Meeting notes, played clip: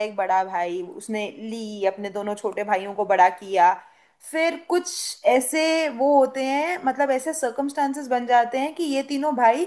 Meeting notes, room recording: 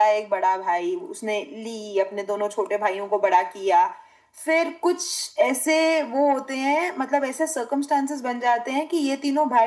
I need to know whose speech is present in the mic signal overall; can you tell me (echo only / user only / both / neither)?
echo only